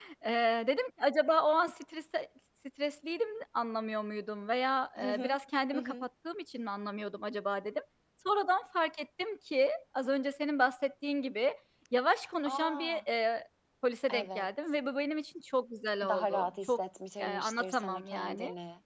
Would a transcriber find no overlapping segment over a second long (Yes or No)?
No